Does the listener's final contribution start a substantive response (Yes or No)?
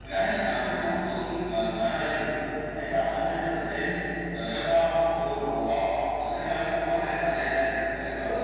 Yes